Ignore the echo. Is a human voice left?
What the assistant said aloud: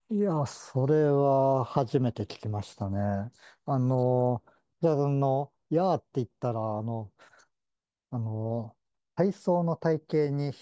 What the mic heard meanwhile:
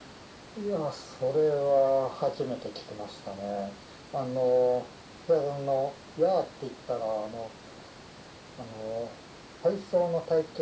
No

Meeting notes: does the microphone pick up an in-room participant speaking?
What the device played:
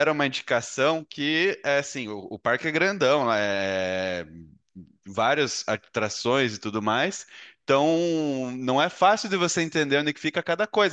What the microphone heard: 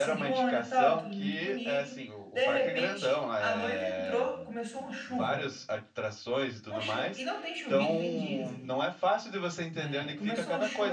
Yes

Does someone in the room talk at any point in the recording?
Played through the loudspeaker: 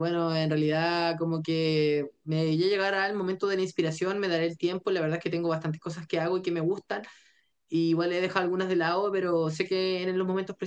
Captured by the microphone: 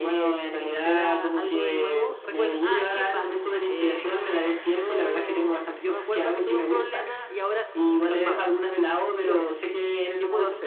Yes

